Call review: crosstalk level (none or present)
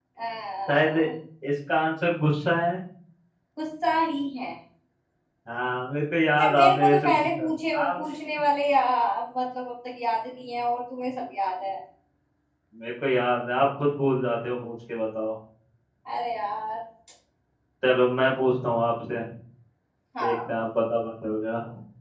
present